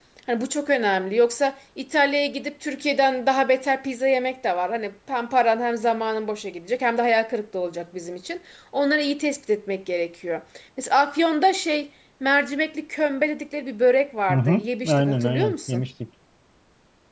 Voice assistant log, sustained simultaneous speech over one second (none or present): present